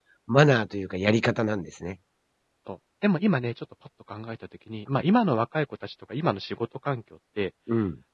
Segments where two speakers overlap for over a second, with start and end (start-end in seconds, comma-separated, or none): none